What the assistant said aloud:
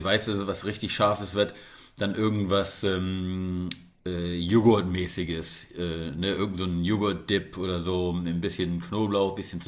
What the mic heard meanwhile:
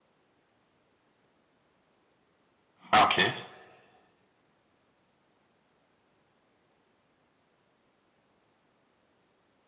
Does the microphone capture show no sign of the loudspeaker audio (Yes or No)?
Yes